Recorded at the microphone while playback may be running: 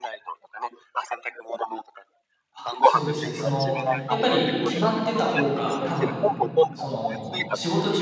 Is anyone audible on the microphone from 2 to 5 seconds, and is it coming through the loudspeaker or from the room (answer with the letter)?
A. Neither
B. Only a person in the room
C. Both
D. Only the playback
C